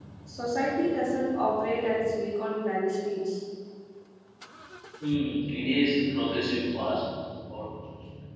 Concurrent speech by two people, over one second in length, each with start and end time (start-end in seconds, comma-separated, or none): none